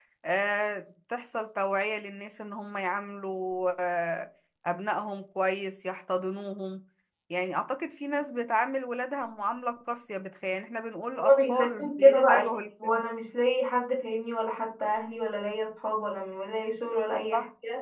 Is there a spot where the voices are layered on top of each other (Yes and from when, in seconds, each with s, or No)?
Yes, from 11.2 s